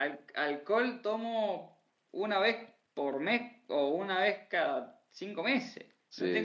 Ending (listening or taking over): listening